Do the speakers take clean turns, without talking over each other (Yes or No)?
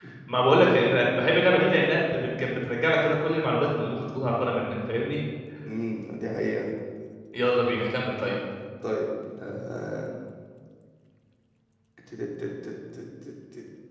Yes